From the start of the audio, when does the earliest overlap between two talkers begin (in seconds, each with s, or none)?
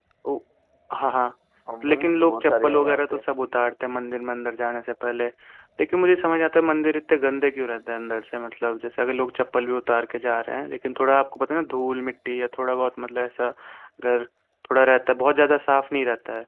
1.8 s